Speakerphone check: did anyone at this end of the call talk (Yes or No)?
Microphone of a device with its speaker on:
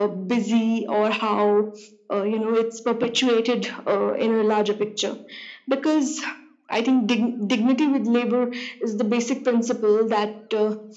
No